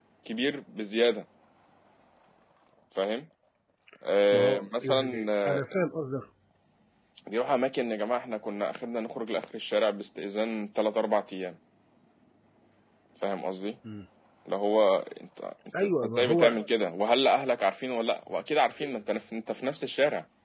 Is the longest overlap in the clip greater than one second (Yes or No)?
Yes